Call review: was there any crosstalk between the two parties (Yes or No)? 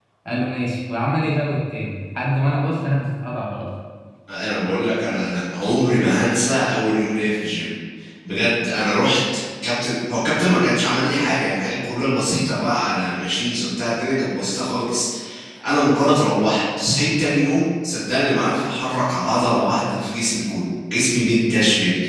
No